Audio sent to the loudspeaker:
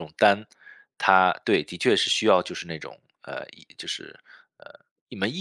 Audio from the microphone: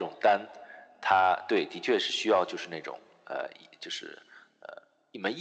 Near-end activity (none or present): none